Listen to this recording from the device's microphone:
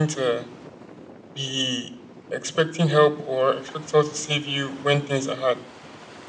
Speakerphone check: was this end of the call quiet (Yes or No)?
Yes